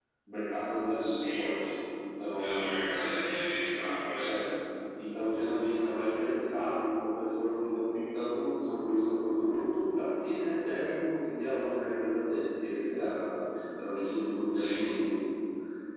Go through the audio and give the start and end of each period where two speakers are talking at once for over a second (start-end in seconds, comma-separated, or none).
none